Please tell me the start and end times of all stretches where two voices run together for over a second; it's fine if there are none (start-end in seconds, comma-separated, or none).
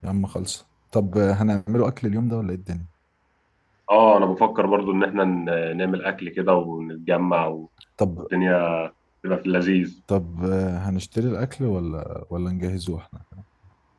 none